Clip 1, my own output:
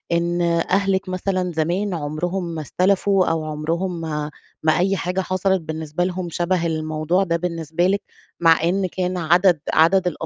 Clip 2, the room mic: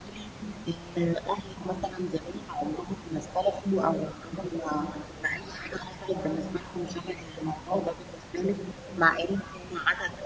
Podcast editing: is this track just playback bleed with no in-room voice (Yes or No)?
Yes